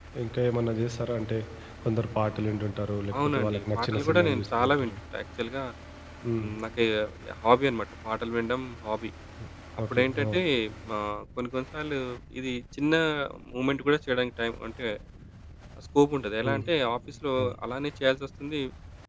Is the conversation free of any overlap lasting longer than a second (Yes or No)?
No